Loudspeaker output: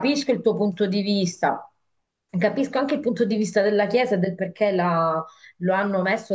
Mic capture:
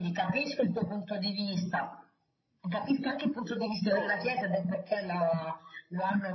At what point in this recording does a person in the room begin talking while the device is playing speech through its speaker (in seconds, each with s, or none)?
3.9 s